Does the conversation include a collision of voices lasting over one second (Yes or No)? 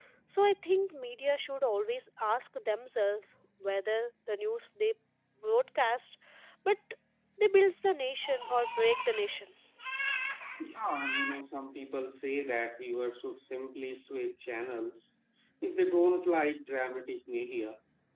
No